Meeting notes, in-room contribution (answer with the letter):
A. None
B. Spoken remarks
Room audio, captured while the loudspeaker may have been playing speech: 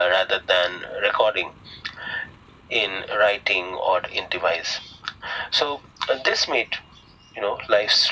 A